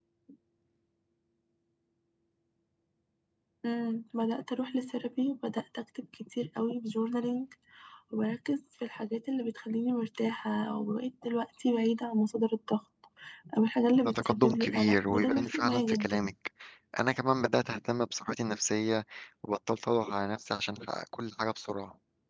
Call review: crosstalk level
present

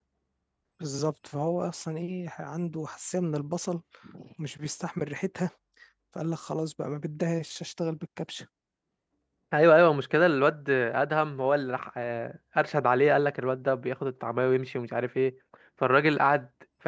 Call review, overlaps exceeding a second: none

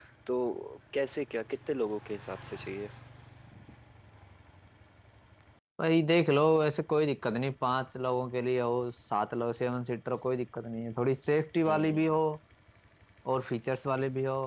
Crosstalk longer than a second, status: none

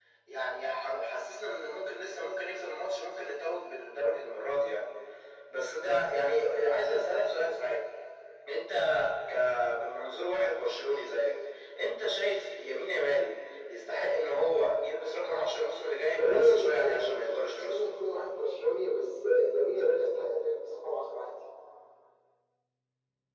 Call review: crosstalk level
present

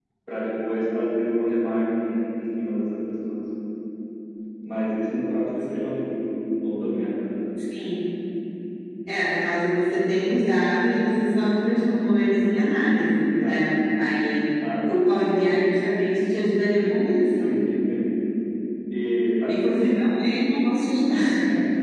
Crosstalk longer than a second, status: none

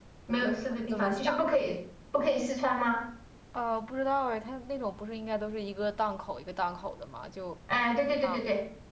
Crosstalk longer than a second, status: present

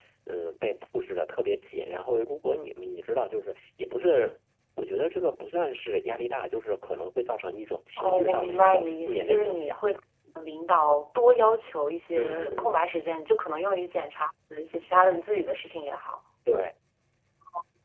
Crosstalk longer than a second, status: present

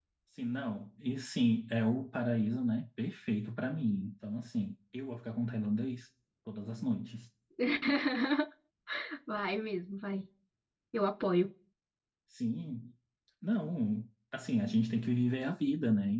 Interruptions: none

